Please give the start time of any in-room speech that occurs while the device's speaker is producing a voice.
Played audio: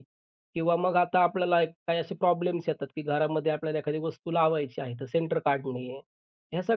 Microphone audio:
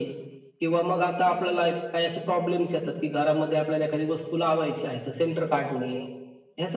none

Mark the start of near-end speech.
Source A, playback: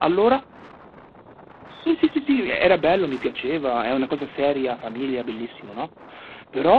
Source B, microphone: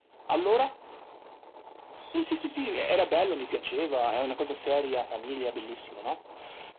none

